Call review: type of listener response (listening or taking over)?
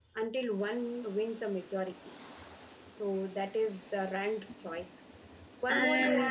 listening